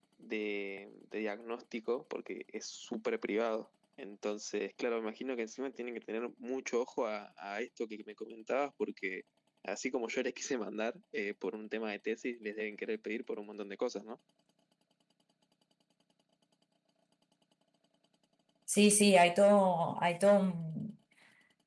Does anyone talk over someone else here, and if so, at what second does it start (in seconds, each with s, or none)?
none